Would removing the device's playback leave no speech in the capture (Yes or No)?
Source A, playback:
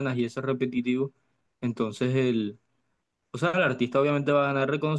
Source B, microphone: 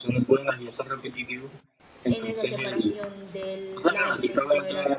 No